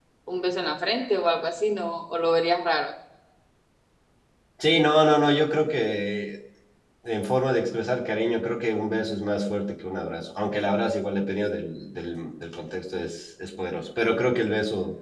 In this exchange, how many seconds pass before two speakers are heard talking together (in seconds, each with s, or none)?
none